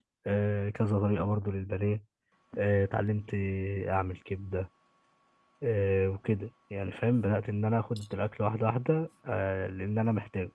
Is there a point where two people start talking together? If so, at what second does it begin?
none

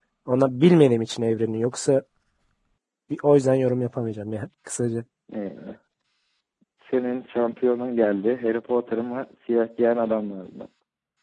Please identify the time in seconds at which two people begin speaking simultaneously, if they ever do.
none

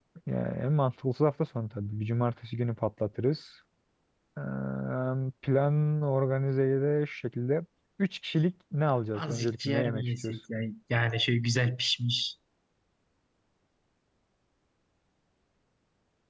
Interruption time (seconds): 9.1 s

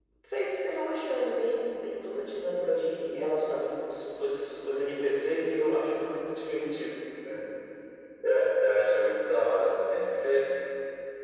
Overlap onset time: none

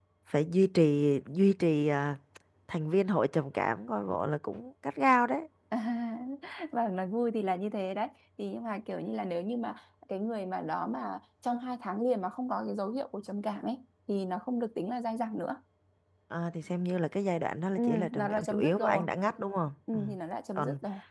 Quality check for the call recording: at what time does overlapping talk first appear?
17.8 s

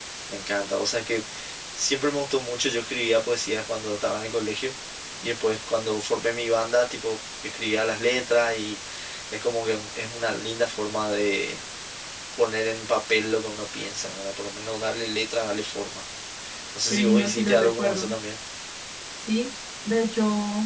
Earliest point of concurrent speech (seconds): 16.9 s

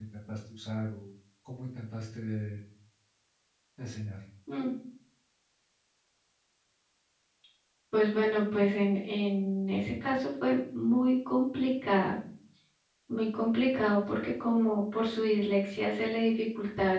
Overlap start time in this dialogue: none

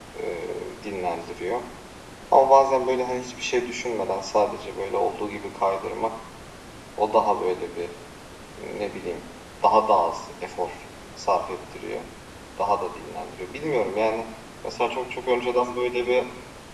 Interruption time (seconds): none

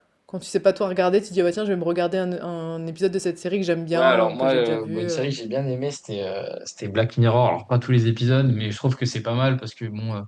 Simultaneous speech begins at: 3.9 s

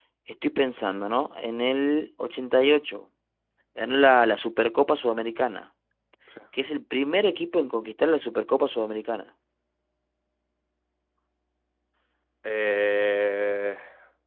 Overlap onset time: none

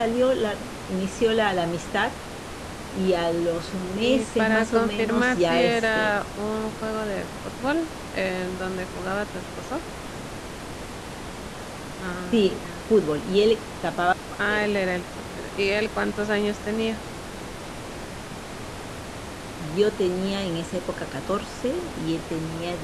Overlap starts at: 4.0 s

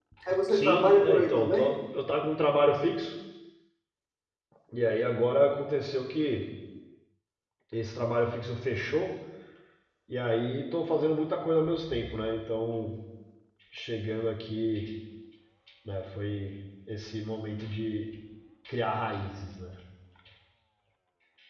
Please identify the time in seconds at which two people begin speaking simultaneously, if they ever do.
0.5 s

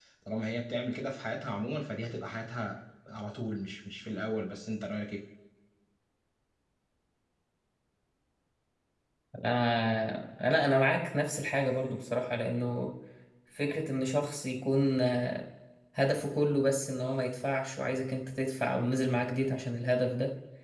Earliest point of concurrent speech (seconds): none

